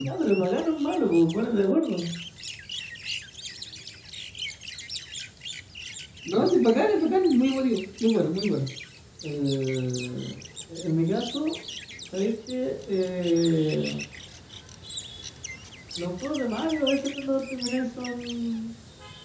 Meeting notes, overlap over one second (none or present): none